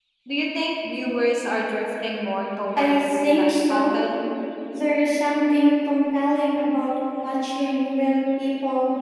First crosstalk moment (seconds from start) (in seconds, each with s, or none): 2.8 s